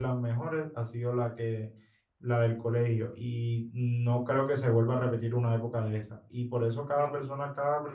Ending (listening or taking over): listening